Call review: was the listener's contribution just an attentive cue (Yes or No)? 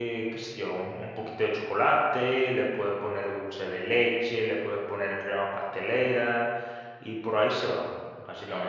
No